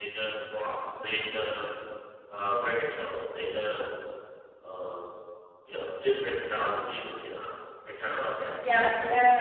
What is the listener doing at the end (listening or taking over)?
taking over